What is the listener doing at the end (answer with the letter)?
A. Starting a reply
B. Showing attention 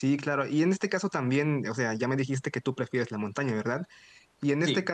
B